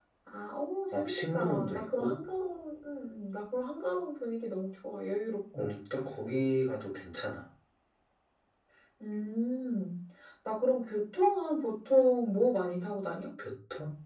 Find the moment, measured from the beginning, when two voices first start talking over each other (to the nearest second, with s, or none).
1 s